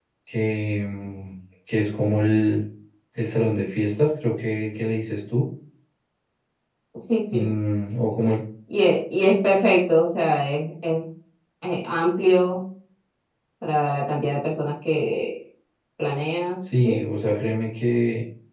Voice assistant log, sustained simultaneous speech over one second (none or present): none